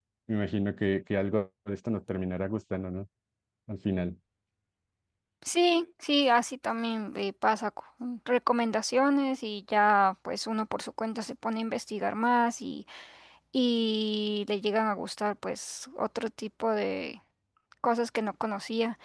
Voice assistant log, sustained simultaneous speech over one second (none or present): none